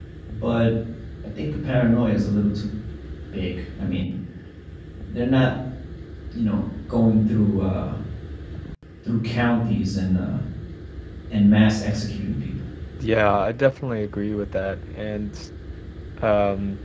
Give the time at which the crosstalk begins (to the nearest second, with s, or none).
none